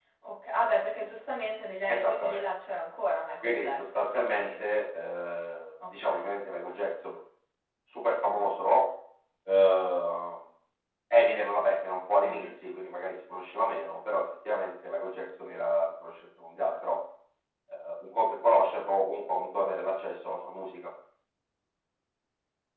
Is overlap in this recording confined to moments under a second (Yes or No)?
No